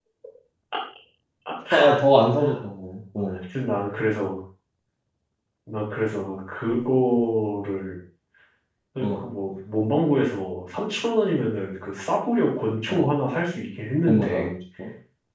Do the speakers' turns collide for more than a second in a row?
No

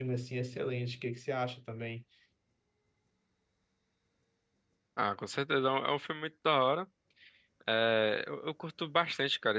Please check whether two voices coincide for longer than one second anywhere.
No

